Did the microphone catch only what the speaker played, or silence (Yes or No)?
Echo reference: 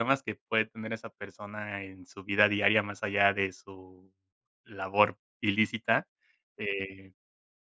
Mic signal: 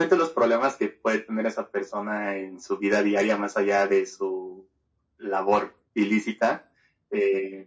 Yes